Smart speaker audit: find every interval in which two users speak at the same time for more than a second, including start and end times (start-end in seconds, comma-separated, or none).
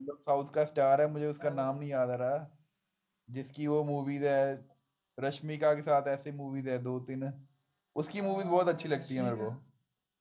8.2-9.4